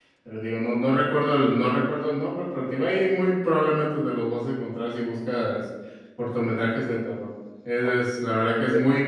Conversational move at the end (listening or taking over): listening